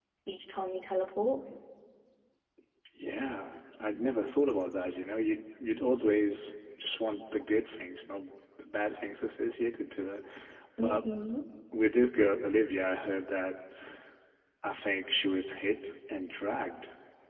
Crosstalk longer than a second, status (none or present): none